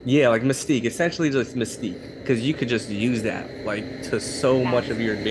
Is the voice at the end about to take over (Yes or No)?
No